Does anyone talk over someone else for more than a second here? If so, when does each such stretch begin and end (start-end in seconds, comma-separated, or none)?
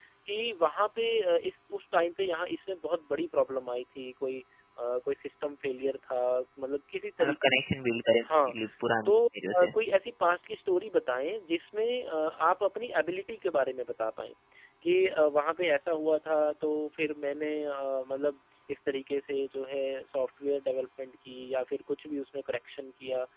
none